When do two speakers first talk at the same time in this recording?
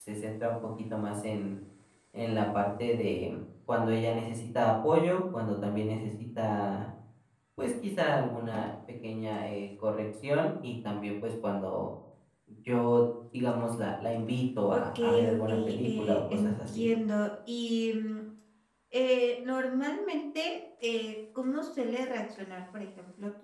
15 s

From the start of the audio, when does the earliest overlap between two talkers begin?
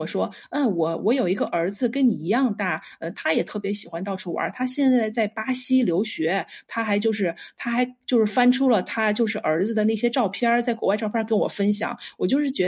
none

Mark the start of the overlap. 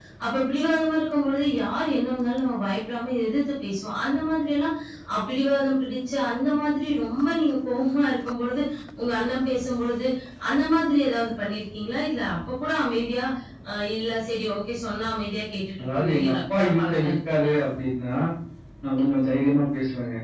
16 s

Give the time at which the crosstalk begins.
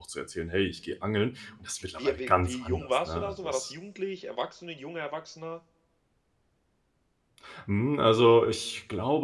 2 s

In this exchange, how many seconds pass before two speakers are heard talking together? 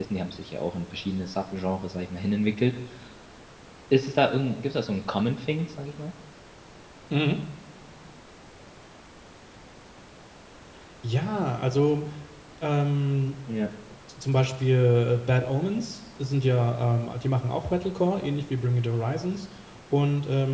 none

